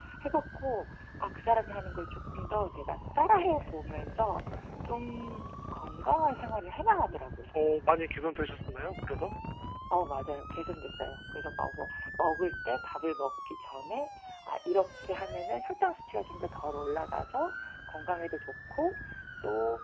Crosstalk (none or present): none